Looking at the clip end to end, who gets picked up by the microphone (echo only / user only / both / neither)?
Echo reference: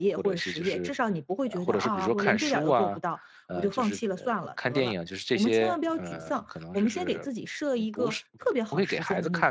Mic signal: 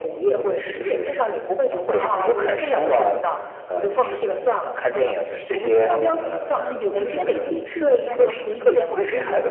both